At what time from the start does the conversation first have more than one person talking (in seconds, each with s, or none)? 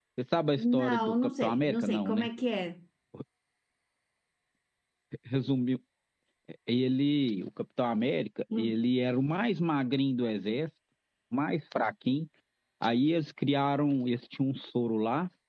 0.6 s